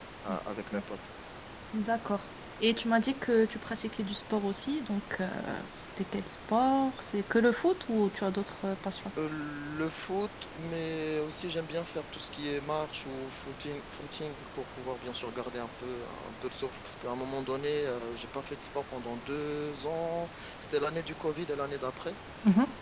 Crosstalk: none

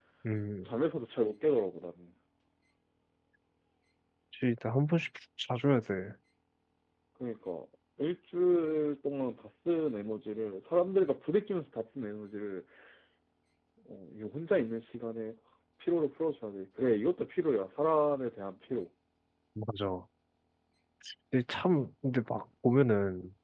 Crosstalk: none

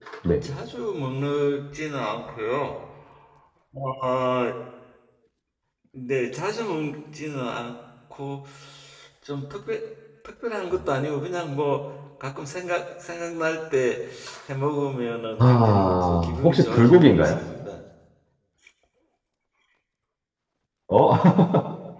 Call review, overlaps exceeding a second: present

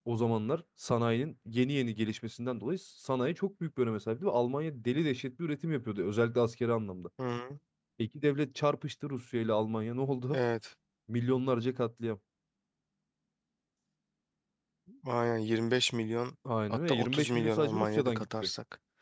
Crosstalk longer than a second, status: present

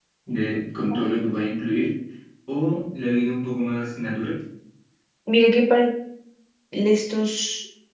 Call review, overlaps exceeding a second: none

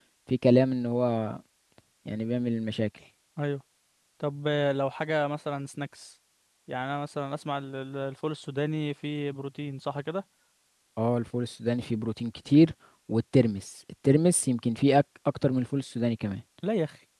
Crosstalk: none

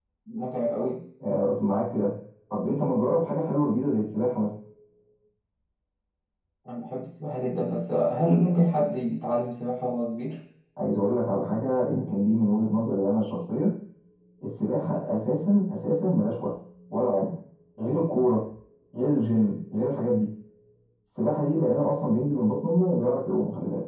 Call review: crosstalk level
none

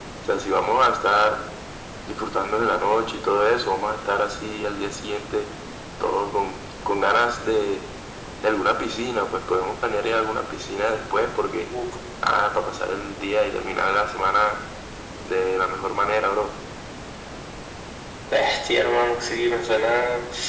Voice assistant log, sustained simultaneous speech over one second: none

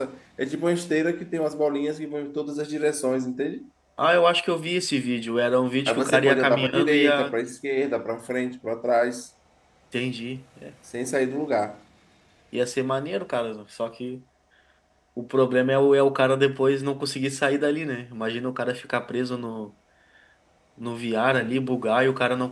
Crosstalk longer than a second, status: present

